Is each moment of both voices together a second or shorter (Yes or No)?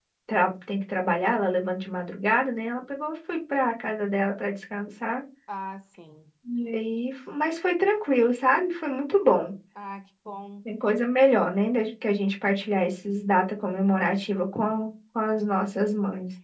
Yes